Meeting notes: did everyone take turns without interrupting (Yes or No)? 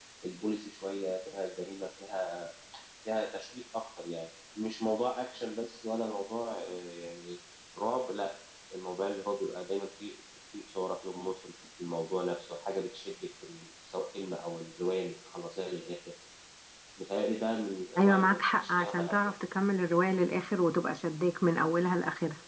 No